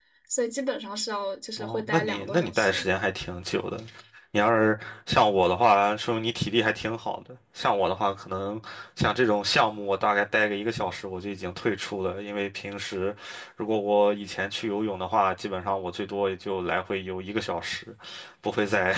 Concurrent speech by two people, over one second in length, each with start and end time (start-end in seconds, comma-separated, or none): 1.6-2.9